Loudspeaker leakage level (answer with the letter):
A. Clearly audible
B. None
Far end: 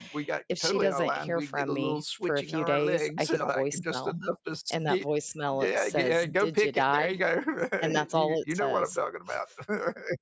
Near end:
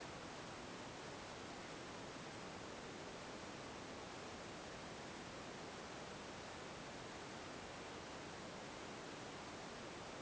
B